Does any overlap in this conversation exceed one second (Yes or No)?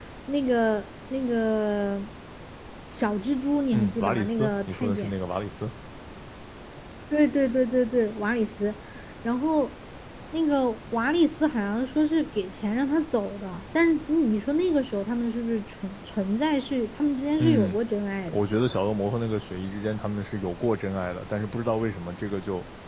Yes